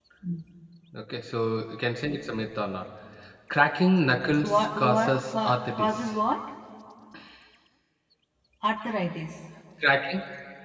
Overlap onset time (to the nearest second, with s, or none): 4 s